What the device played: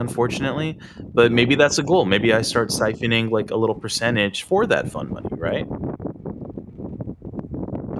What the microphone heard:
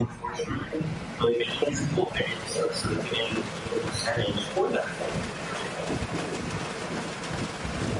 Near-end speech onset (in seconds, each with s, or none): none